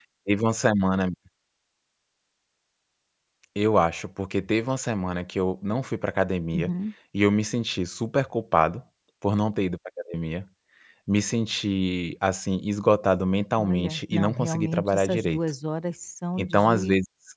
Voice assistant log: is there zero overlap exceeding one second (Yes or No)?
No